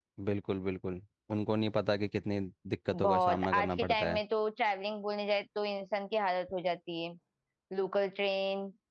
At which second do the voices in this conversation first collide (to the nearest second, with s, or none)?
3 s